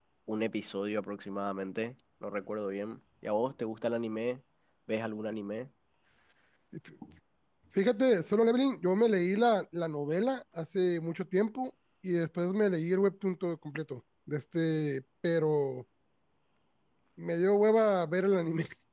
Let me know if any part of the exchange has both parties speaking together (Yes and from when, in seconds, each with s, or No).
No